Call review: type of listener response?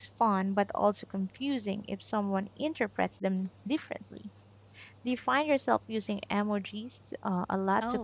taking over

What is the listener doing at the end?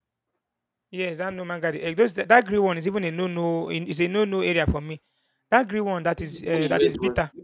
taking over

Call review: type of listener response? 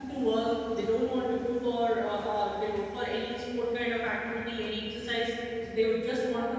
listening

